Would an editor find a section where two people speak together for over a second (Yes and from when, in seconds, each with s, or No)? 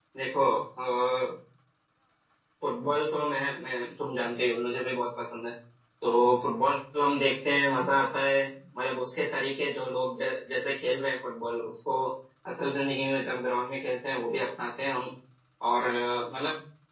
No